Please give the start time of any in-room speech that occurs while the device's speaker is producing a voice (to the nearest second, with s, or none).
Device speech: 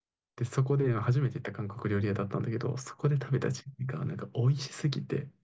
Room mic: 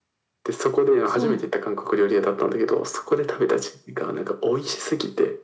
1 s